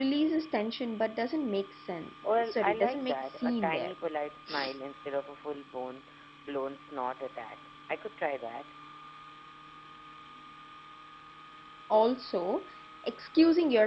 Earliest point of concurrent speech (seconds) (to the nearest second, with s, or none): 2 s